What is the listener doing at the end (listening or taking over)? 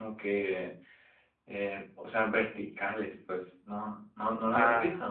taking over